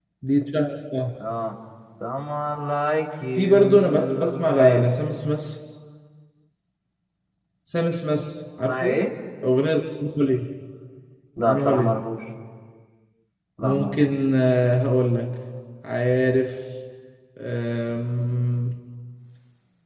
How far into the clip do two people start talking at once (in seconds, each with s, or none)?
3.4 s